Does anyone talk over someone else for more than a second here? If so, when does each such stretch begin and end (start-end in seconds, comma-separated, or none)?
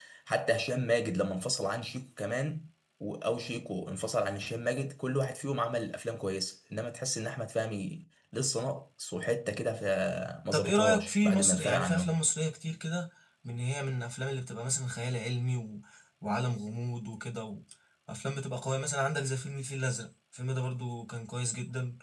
10.5-12.2